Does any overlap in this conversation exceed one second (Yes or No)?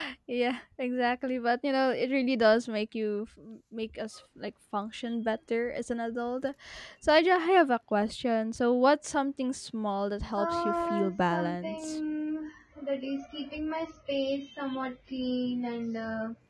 Yes